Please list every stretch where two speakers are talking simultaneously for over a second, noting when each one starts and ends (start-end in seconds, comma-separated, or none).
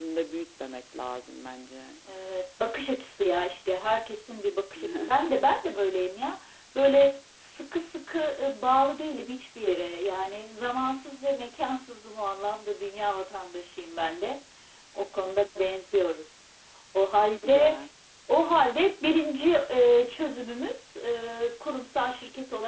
none